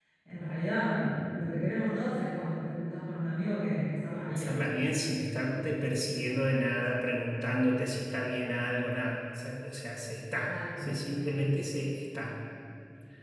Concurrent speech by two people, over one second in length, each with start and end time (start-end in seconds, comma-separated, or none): none